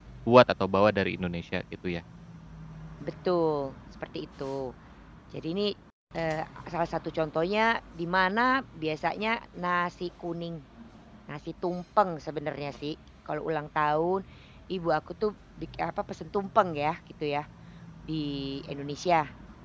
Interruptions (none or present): none